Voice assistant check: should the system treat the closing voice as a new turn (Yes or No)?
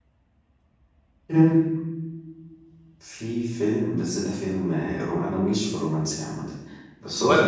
No